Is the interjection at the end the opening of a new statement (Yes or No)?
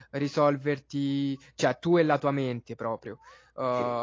No